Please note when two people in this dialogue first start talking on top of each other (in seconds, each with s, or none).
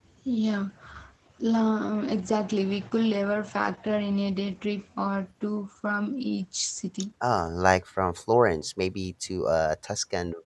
none